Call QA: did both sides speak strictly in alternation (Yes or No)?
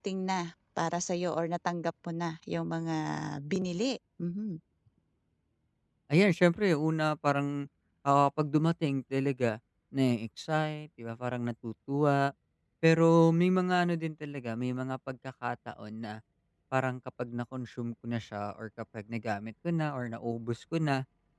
Yes